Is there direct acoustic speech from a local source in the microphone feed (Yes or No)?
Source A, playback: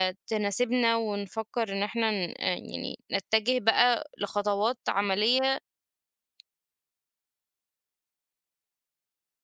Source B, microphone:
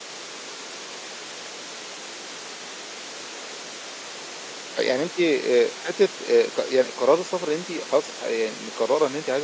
Yes